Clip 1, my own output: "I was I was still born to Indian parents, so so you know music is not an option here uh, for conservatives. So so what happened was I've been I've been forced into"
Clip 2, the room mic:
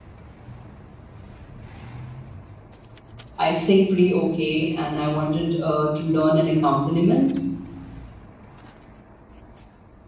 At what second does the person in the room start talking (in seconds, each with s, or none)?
3.4 s